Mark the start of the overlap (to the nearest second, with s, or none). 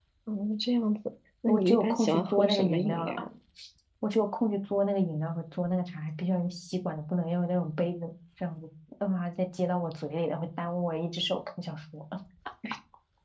1 s